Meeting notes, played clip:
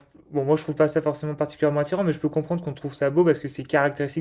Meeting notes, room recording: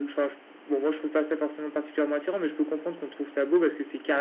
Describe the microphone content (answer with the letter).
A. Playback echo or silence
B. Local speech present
A